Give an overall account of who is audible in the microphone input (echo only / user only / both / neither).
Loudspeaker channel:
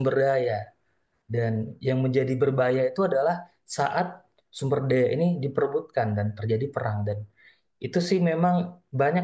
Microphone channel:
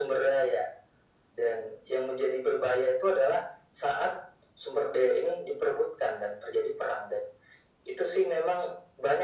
echo only